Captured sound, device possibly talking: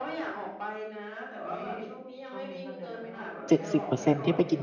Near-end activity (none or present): present